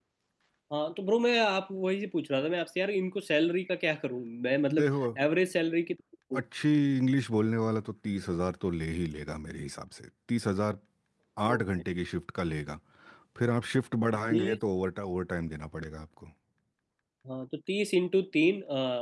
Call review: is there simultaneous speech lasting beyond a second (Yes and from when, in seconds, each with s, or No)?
No